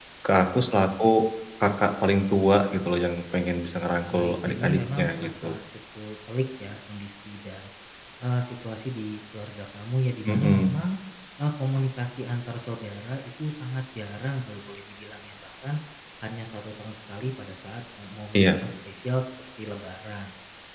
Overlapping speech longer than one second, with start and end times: 4.1-5.6

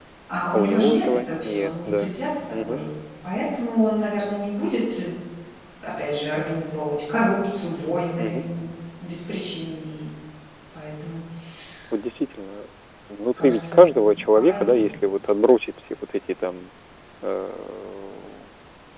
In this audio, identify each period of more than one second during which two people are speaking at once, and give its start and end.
0.5-2.1

